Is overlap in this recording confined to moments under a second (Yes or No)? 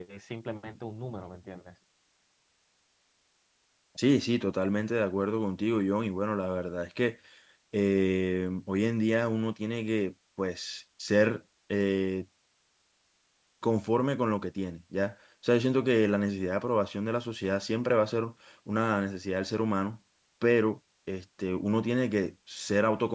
Yes